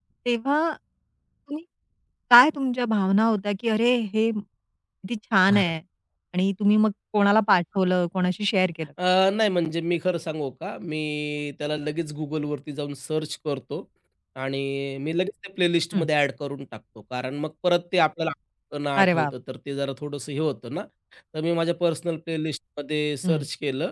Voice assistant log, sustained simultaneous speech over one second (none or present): none